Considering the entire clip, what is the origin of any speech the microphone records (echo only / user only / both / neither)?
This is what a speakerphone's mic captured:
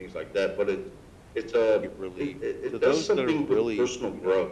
both